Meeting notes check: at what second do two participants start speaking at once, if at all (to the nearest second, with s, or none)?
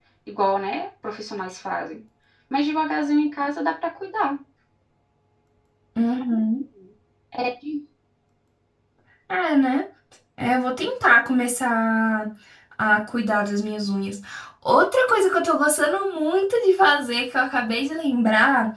none